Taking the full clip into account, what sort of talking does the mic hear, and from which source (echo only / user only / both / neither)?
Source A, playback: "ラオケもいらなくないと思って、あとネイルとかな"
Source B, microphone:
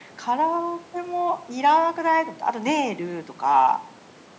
echo only